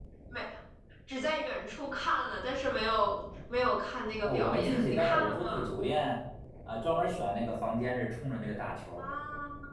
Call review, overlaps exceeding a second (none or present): present